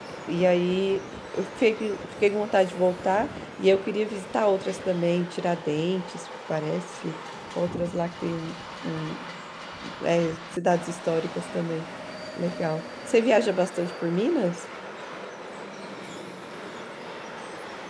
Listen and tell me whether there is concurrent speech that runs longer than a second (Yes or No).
No